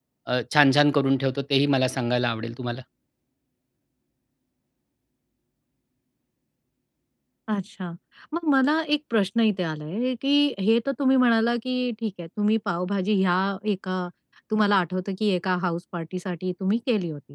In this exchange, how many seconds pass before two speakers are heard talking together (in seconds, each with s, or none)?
none